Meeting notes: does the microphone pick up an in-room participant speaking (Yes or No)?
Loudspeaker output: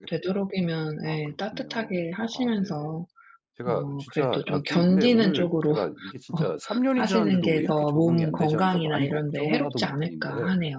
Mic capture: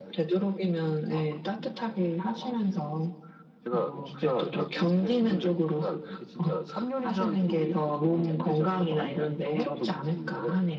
No